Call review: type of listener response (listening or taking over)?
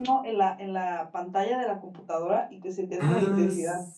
taking over